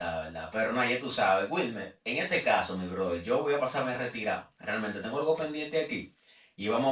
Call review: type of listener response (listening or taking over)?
listening